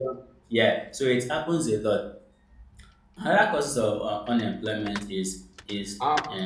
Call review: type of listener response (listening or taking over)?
listening